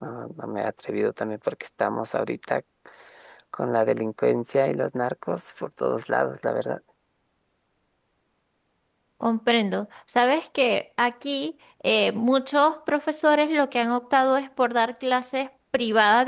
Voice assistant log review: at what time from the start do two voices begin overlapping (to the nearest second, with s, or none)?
none